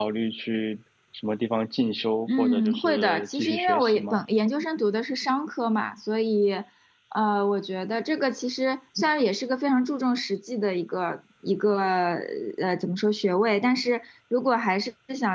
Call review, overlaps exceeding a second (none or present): present